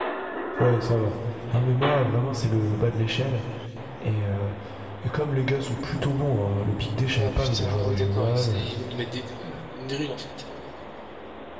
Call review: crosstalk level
present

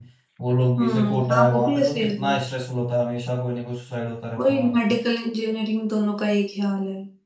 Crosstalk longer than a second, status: present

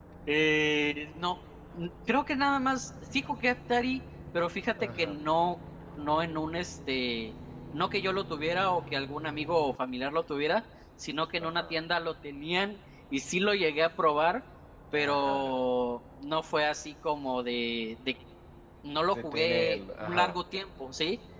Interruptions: present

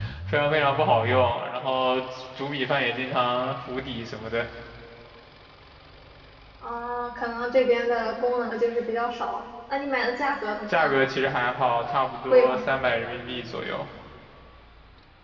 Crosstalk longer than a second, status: none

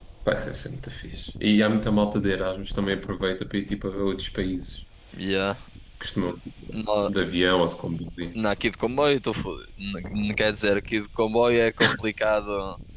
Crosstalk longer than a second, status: none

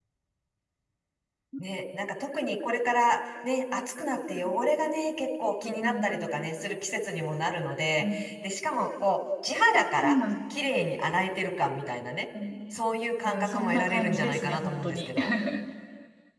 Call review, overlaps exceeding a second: present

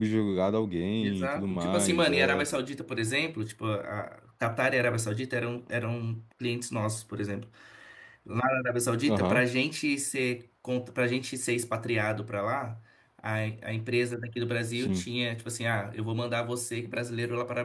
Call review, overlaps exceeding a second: present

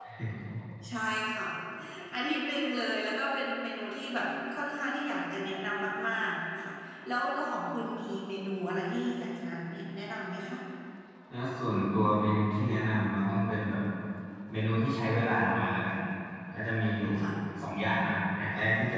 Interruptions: none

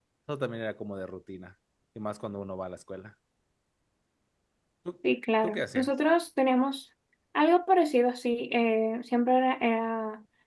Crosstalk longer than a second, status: none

